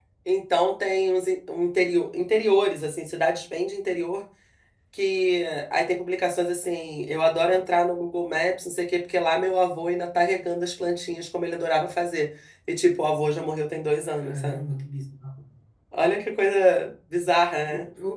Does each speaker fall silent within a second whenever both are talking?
Yes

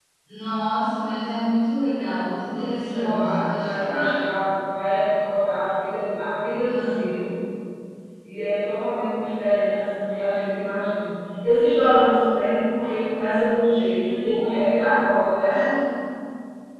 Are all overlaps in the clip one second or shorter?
No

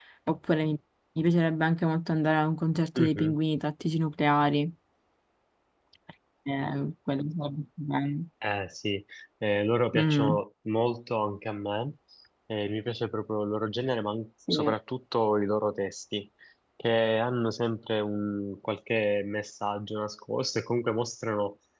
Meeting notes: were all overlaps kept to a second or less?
Yes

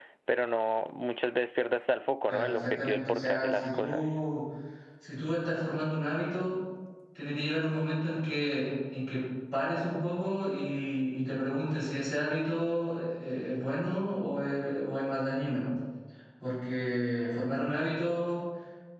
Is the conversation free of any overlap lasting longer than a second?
No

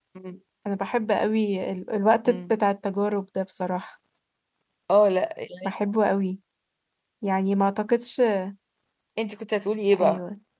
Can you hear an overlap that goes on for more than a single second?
No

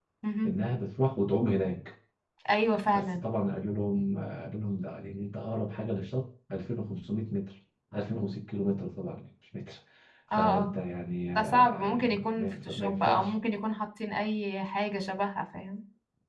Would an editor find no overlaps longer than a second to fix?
No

